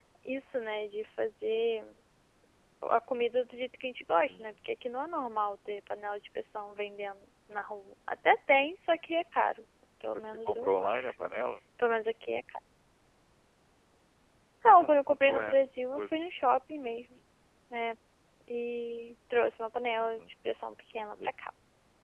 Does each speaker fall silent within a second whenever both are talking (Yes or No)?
No